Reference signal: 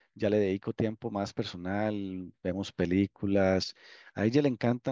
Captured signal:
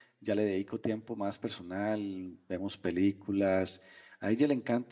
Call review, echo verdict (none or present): present